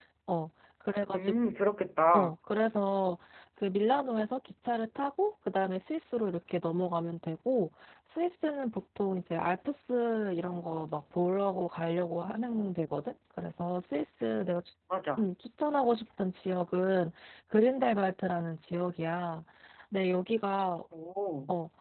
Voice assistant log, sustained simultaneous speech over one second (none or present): none